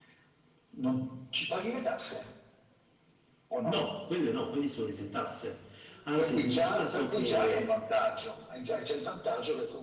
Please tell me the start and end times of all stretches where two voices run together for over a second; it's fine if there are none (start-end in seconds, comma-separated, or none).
6.2-7.8